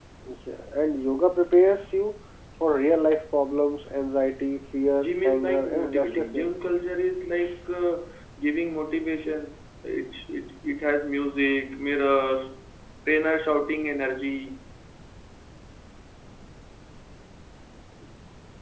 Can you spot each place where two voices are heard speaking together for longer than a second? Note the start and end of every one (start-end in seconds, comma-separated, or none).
5.0-6.5